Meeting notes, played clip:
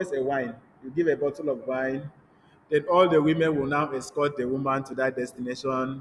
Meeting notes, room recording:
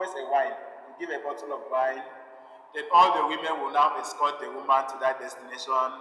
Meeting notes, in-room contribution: none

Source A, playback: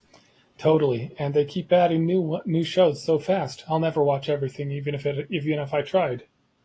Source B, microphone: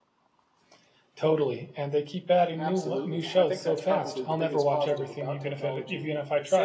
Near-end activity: present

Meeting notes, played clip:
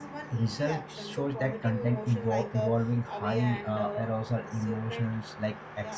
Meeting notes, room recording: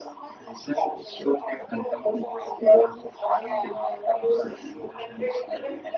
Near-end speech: present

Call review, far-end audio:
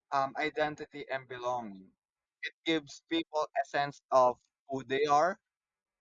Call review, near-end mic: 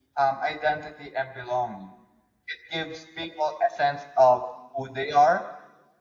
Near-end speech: none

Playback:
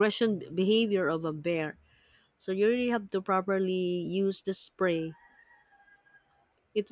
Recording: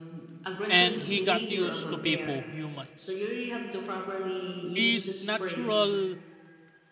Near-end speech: present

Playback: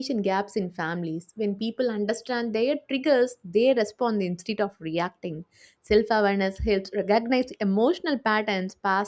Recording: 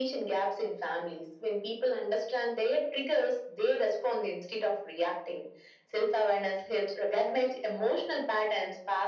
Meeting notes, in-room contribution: none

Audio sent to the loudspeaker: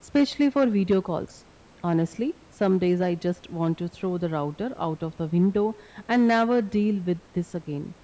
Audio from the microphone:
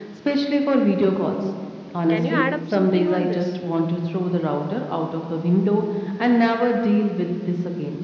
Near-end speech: present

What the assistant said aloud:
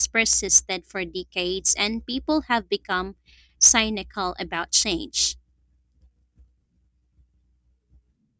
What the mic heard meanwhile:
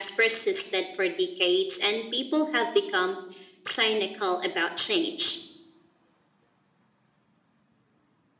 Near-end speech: none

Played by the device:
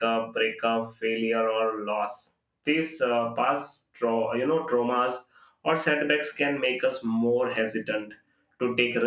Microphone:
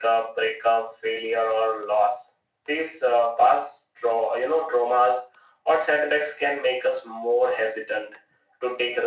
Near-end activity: none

